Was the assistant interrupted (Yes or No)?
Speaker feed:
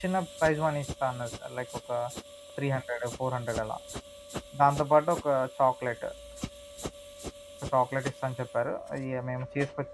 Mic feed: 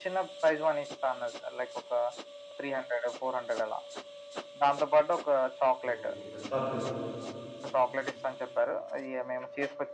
Yes